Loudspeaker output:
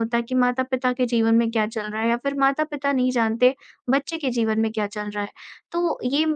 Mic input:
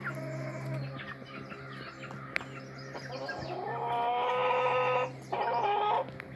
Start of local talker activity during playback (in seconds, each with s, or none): none